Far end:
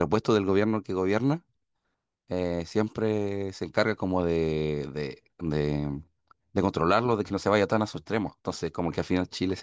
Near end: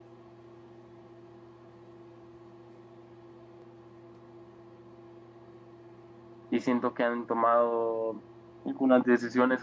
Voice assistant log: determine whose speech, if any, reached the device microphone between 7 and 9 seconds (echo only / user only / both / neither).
user only